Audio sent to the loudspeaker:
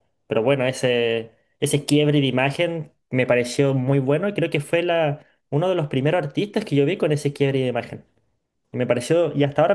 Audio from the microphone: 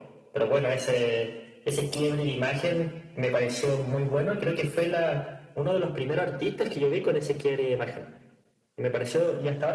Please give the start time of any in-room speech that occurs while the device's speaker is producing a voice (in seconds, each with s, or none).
none